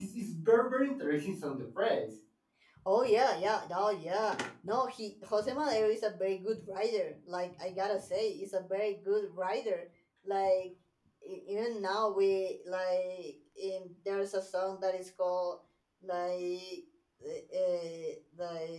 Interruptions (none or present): none